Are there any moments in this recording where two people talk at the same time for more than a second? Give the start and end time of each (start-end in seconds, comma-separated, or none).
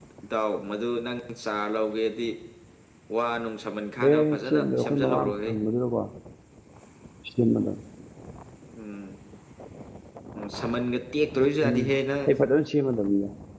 4.0-5.5